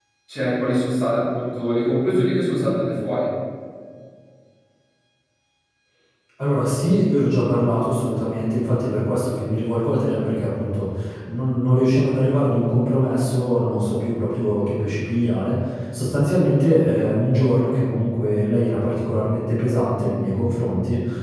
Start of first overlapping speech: none

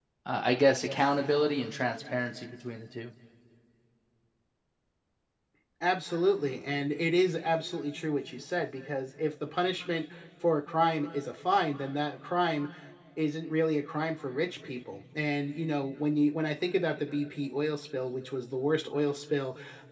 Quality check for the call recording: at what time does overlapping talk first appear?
none

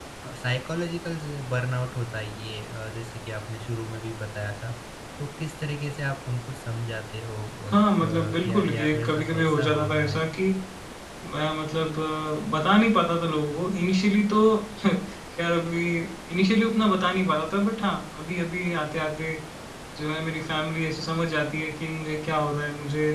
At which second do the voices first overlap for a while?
7.7 s

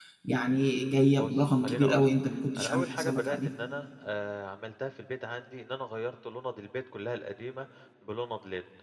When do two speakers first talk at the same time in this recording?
1.2 s

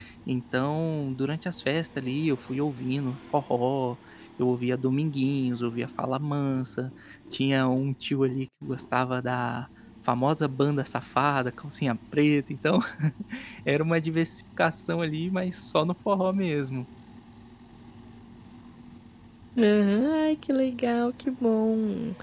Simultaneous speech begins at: none

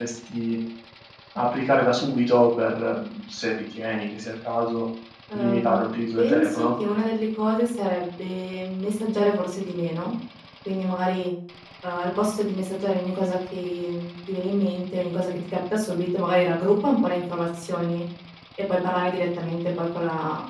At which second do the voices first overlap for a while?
5.3 s

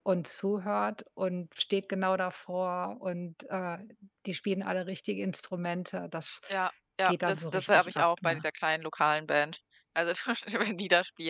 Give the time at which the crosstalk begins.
7.0 s

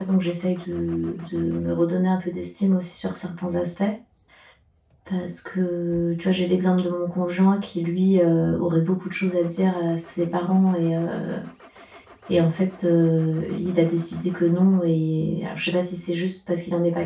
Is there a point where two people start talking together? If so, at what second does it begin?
none

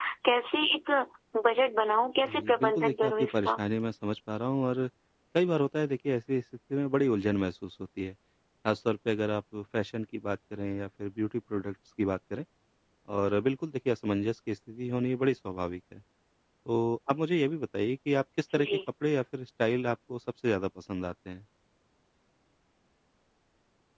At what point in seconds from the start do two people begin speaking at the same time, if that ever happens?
2.2 s

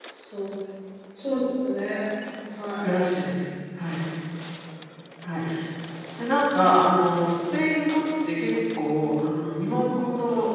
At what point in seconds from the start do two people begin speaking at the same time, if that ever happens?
none

